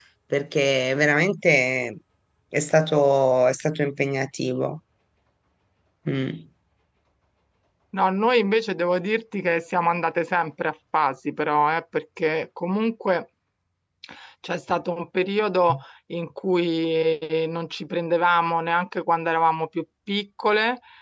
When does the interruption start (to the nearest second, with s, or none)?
none